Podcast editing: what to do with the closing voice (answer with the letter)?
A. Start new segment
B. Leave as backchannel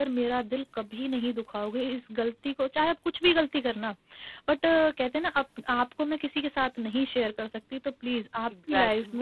A